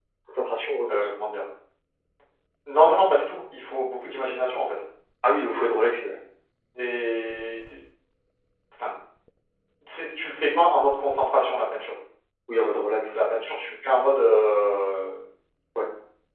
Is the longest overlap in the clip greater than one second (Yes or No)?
No